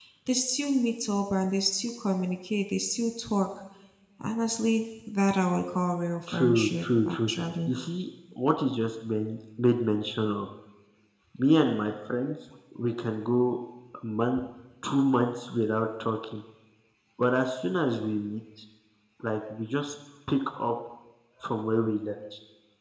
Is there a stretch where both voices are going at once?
Yes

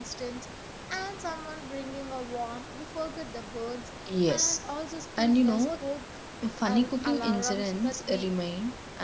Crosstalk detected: Yes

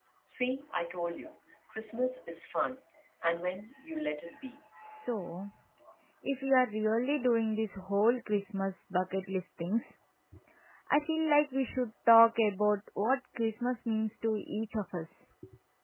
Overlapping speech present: No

